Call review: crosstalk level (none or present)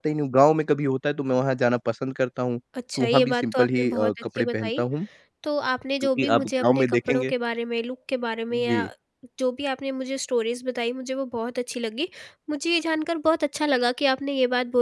present